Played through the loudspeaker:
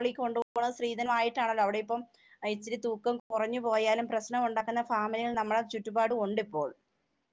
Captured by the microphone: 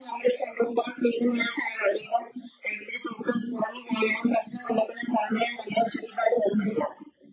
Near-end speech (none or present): none